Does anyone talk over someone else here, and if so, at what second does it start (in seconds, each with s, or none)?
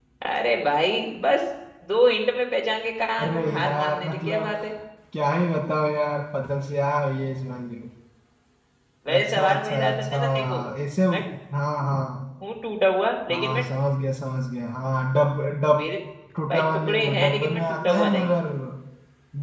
3.2 s